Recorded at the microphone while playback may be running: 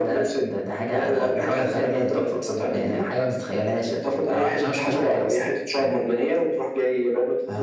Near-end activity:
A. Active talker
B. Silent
B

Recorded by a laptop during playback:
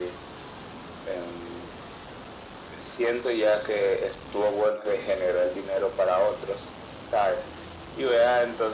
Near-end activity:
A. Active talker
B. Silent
B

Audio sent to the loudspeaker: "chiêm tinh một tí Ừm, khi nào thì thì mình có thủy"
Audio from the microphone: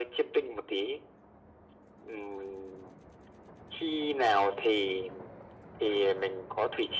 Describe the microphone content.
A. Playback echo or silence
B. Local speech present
A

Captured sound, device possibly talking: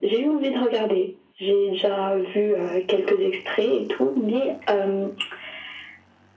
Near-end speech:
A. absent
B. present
A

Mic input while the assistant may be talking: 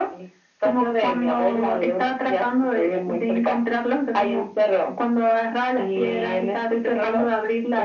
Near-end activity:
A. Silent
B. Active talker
A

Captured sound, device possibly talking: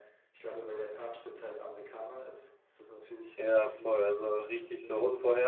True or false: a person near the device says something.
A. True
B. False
A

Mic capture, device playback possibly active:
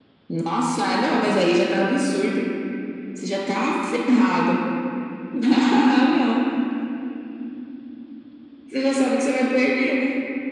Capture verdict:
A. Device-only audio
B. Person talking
A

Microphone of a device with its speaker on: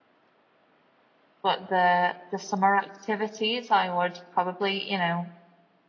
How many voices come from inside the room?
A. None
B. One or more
B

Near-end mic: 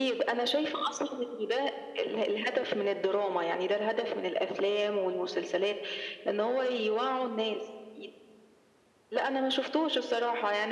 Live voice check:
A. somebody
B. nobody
B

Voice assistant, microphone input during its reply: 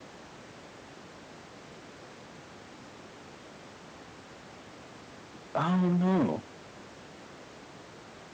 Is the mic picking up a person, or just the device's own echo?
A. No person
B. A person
B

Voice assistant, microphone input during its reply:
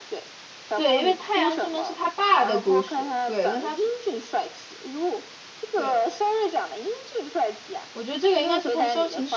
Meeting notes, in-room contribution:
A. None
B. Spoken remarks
B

